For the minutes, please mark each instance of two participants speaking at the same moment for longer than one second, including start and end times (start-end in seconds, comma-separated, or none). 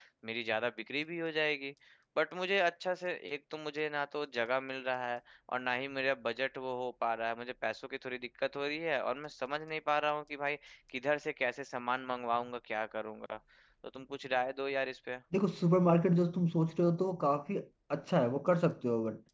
none